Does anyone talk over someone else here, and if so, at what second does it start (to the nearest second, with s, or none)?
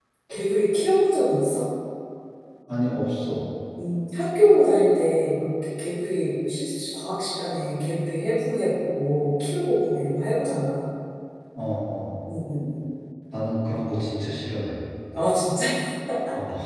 none